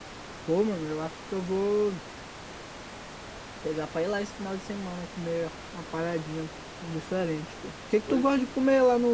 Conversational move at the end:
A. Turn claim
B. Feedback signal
B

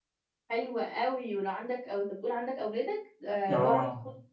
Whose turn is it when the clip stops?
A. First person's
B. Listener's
A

